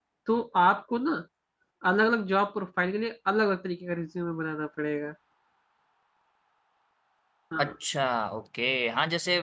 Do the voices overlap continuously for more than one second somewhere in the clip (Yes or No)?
No